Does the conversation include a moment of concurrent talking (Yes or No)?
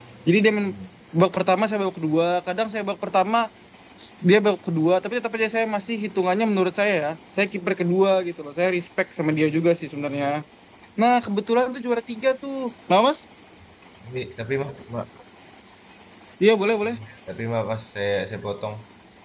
No